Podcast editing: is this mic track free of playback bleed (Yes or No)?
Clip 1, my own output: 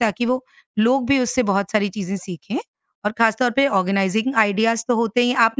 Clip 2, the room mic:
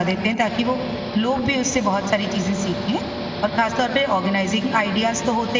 No